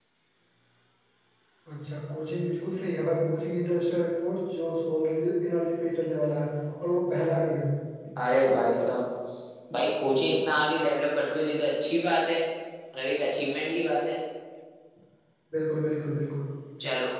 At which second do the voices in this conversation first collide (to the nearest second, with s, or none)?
none